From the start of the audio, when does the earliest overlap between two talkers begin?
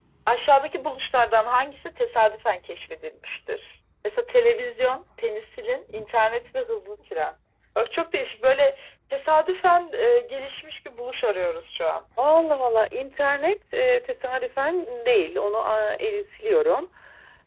none

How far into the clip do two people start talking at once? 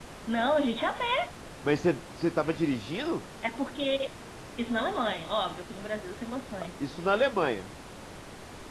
none

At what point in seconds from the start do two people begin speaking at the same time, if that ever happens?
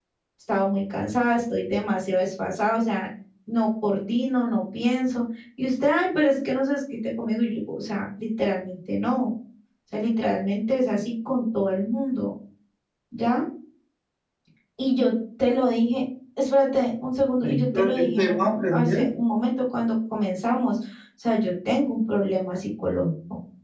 17.4 s

